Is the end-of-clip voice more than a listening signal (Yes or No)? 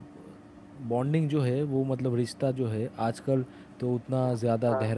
No